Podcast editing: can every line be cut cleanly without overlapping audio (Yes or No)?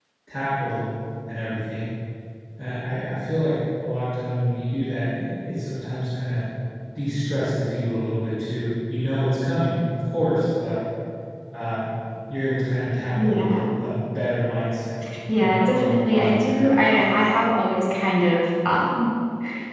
No